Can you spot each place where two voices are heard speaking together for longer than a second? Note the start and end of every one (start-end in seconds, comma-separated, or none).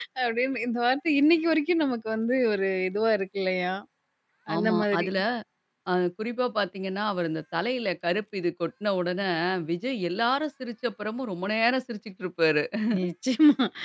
none